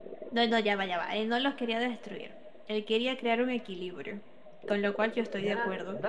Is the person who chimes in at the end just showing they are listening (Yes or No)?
No